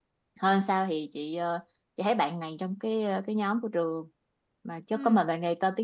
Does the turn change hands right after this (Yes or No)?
No